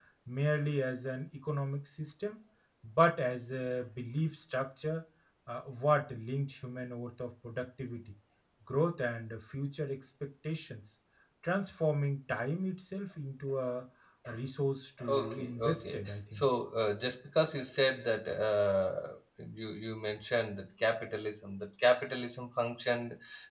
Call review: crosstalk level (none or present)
present